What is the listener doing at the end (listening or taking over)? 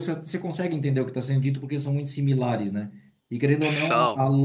listening